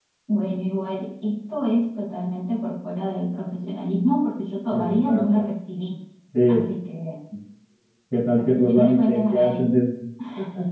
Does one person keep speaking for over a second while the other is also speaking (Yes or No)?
Yes